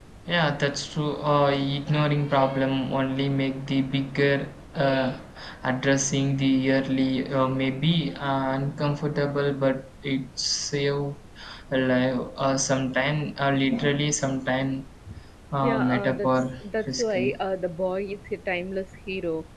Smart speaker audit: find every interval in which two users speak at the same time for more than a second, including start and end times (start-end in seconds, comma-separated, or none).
15.6-17.4